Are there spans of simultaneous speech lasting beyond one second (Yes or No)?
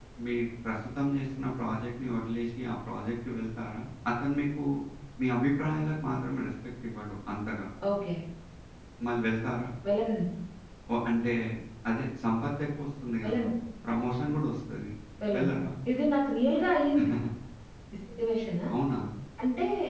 No